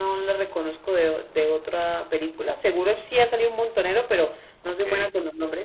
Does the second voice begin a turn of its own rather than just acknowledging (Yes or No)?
No